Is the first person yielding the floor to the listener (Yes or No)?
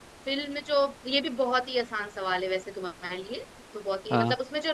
No